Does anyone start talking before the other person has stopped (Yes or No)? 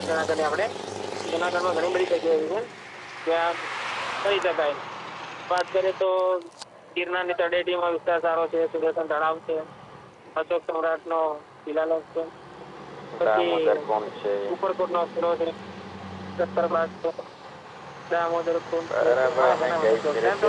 Yes